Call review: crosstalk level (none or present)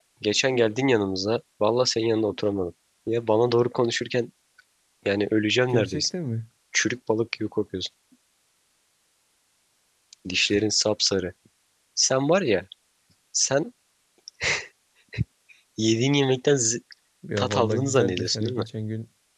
present